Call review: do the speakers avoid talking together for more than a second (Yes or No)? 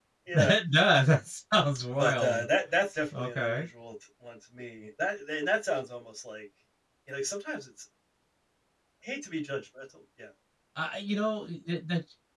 Yes